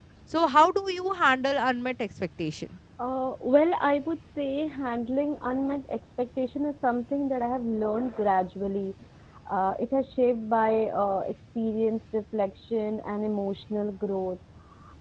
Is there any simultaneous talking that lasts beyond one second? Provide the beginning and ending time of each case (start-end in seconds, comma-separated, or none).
none